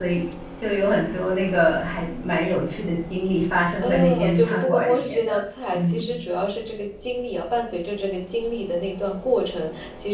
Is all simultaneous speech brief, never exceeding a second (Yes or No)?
No